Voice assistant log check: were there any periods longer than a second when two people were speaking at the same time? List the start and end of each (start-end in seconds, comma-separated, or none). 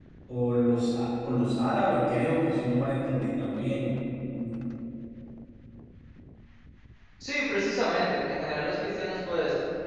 none